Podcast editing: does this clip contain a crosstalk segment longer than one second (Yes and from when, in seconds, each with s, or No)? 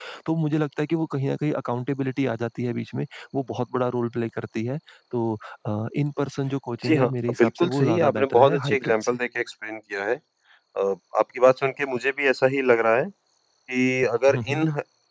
Yes, from 6.8 s